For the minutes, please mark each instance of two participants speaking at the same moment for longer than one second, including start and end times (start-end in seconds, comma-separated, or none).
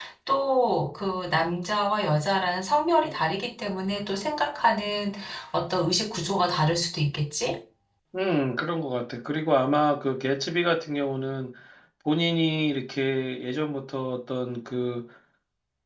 none